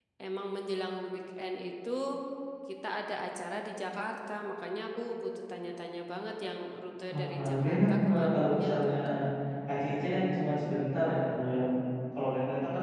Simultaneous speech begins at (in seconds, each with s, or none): 7.1 s